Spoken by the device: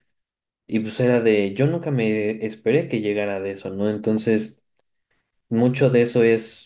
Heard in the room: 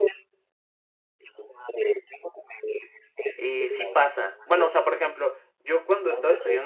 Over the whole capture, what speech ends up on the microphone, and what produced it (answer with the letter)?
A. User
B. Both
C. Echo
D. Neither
B